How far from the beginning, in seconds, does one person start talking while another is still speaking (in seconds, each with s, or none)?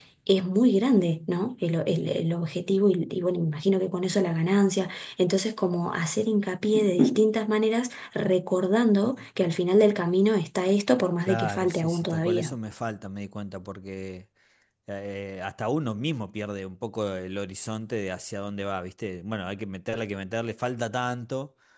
11.2 s